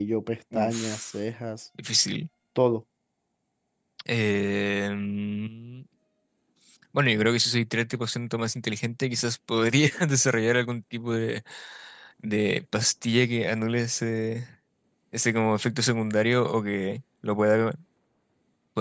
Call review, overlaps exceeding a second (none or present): none